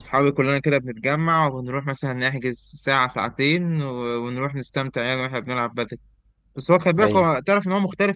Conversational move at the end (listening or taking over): listening